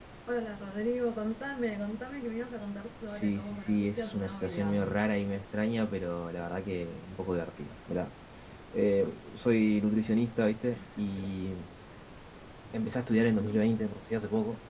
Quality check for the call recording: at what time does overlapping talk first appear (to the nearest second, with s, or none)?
3 s